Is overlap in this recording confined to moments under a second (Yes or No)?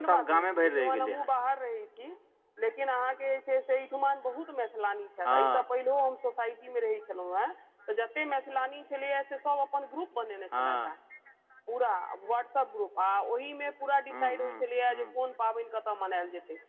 No